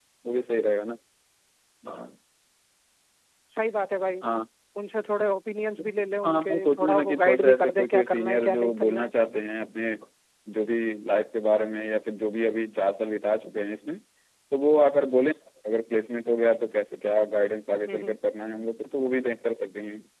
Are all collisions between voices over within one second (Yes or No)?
No